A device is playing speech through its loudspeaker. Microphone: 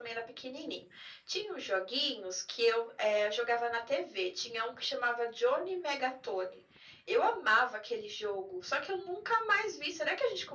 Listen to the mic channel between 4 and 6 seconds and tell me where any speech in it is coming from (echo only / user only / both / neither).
echo only